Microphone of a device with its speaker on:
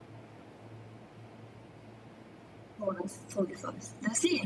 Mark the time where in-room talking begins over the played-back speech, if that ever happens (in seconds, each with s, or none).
none